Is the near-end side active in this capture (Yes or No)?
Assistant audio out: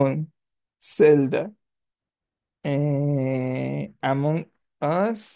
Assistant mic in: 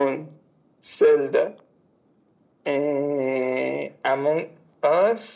No